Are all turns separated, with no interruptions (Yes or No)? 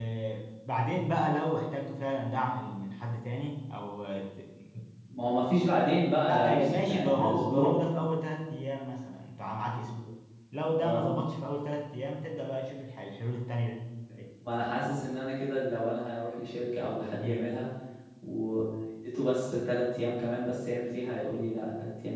No